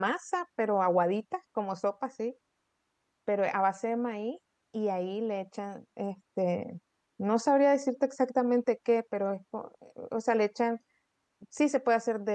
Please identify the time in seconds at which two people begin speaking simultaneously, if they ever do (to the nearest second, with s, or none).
none